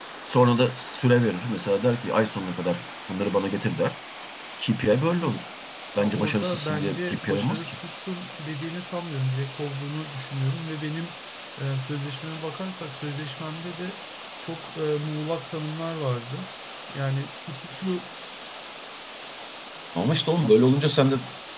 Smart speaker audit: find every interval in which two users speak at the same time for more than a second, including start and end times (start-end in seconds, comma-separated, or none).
6.0-7.8